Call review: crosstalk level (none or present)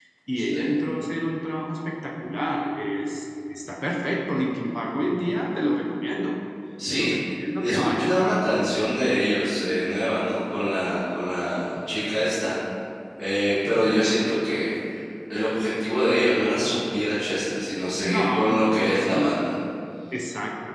present